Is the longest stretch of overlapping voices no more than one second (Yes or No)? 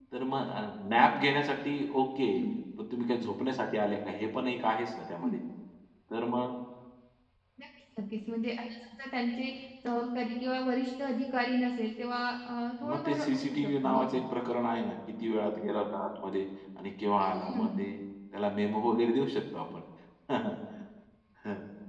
No